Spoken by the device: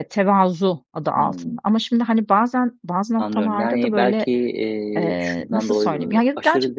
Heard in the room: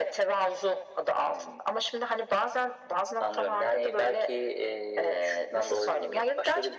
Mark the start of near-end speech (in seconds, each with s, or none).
none